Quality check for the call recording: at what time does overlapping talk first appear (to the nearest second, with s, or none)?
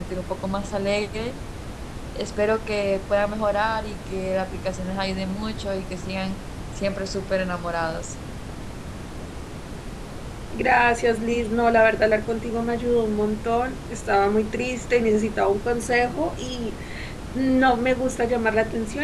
none